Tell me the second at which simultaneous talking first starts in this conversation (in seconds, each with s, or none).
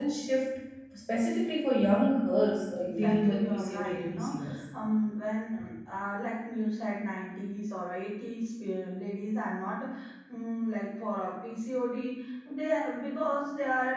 2.8 s